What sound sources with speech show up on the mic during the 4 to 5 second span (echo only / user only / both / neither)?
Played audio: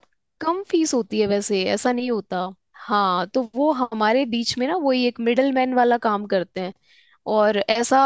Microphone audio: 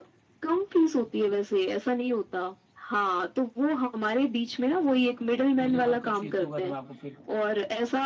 echo only